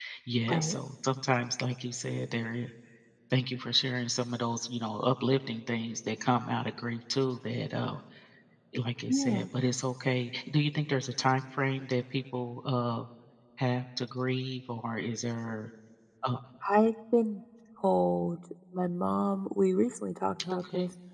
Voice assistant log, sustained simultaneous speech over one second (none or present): none